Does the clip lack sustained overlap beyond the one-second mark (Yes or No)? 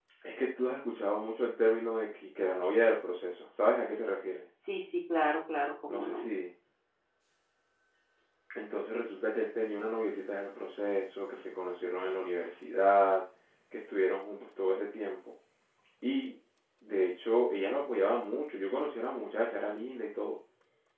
Yes